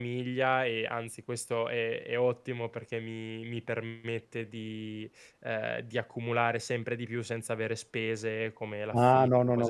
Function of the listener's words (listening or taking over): taking over